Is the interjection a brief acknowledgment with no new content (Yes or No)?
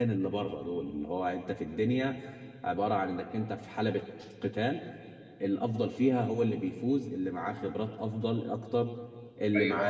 No